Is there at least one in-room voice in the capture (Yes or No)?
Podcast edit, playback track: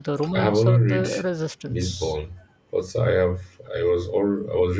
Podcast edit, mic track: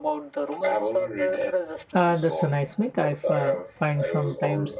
Yes